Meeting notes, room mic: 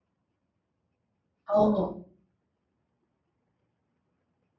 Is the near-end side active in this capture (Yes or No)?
Yes